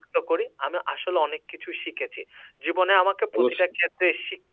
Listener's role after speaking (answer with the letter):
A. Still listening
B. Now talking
A